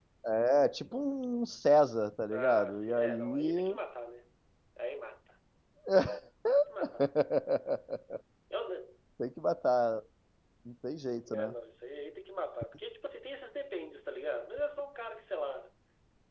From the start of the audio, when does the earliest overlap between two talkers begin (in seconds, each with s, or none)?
2.3 s